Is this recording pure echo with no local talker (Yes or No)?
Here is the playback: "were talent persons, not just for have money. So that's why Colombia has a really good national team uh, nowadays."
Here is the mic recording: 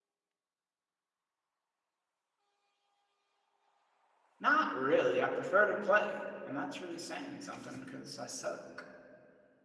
No